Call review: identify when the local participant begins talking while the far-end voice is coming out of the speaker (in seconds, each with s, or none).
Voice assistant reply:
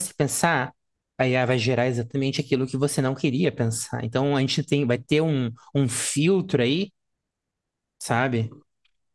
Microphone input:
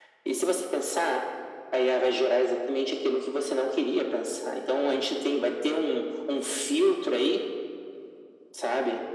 none